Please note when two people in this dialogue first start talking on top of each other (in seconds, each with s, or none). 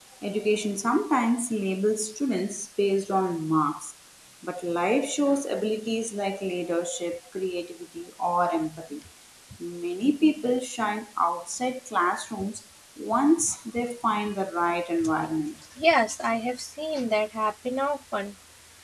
none